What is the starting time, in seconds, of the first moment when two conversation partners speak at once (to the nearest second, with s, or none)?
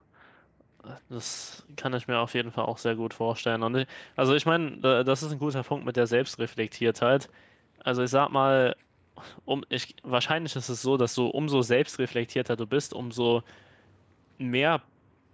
none